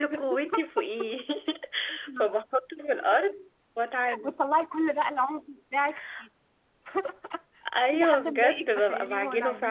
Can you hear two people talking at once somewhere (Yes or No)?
Yes